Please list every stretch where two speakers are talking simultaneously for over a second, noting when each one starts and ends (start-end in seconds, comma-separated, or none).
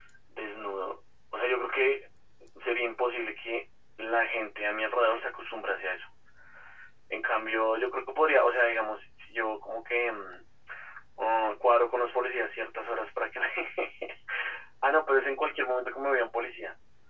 none